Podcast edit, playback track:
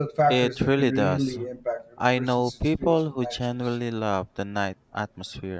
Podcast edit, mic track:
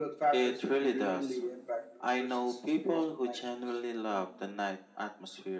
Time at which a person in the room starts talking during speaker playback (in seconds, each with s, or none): none